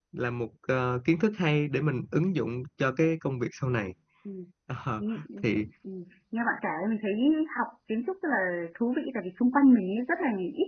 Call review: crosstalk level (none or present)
none